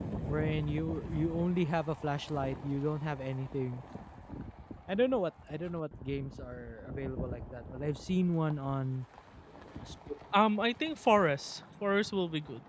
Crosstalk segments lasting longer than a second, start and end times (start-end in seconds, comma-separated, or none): none